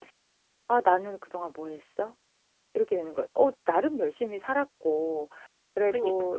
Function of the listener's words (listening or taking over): listening